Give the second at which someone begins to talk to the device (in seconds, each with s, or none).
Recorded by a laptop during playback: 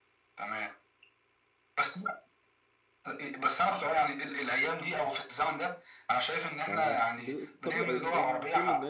6.6 s